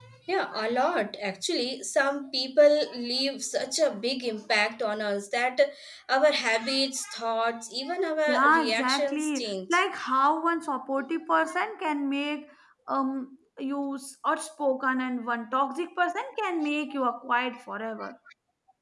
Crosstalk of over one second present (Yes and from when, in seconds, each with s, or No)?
Yes, from 8.3 s